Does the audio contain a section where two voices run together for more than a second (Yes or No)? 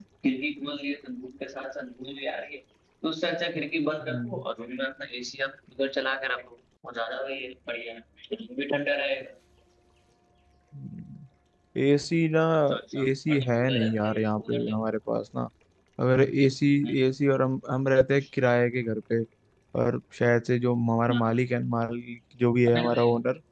Yes